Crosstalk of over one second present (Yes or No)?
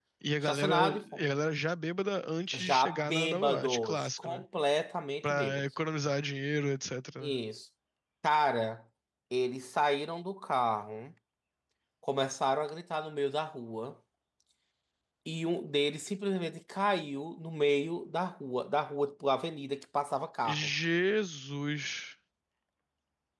Yes